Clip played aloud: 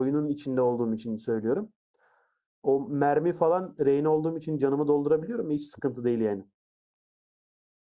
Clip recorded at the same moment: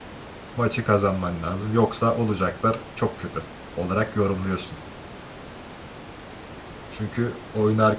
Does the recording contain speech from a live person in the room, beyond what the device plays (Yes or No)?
Yes